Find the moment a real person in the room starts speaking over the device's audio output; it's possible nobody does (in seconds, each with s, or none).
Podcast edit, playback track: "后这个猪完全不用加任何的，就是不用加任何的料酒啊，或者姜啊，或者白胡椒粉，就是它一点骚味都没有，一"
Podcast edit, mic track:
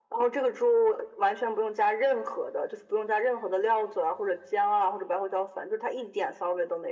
none